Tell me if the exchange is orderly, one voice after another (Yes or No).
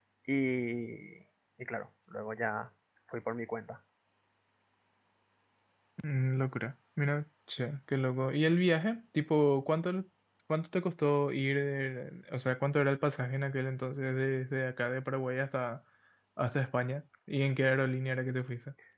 Yes